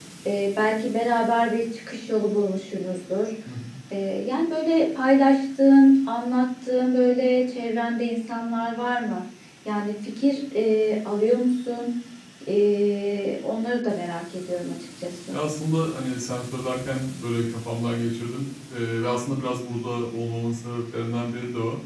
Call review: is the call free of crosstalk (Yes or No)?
Yes